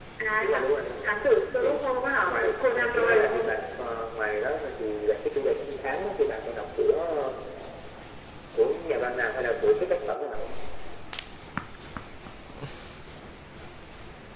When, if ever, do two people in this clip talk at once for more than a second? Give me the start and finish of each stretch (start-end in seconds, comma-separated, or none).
2.2-3.5